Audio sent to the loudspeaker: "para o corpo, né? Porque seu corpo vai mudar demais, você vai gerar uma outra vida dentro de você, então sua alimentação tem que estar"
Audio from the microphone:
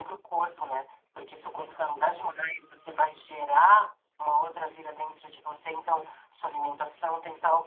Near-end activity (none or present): none